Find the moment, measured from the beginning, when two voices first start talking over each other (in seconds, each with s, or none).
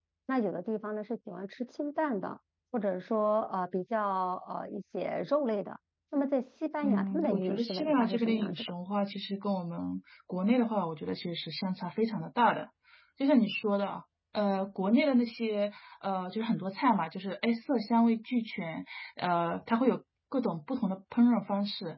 6.8 s